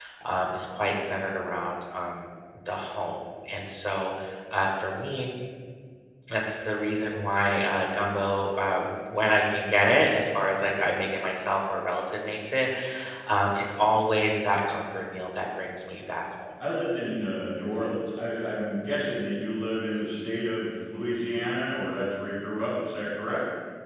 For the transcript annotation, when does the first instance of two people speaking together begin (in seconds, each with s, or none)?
none